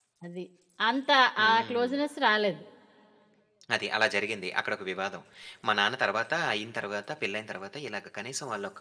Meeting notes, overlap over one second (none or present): none